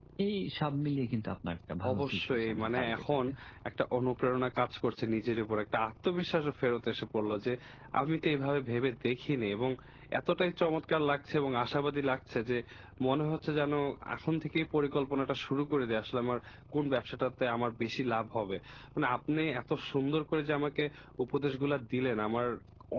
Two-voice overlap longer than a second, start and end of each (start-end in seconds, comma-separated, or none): 1.9-3.2